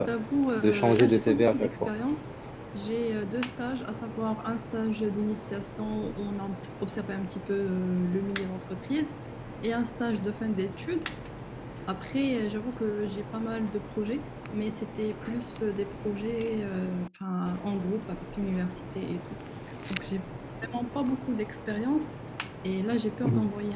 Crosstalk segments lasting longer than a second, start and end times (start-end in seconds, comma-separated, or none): 0.6-1.9